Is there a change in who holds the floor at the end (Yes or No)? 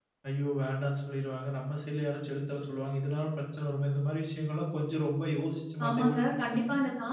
Yes